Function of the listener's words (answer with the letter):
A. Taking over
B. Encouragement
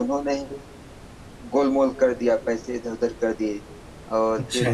B